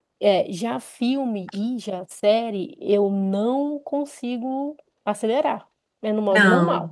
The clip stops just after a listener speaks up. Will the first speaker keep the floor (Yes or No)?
No